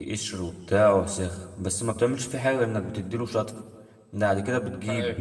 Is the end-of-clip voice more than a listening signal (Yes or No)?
No